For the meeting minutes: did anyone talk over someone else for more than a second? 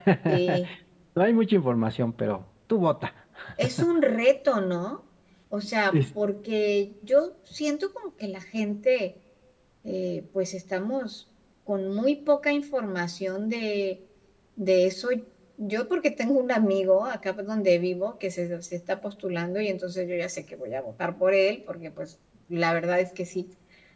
No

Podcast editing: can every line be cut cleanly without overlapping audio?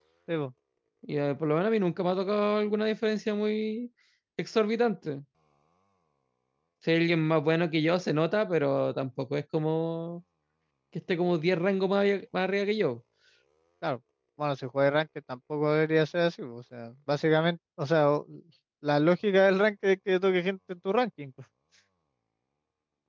Yes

